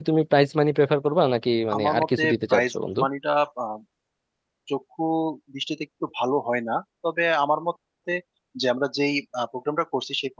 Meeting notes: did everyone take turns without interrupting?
No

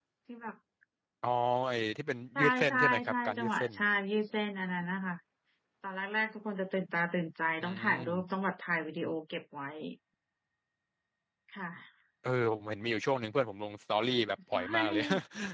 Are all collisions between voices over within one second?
No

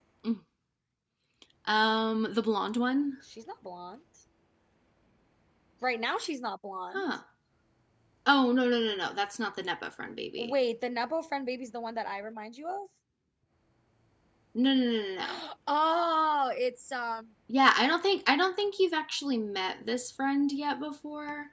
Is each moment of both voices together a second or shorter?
Yes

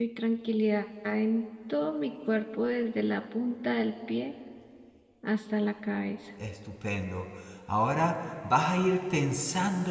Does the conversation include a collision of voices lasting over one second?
No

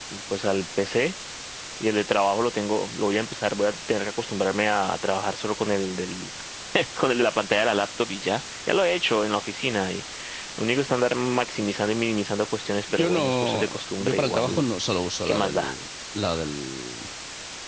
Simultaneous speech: Yes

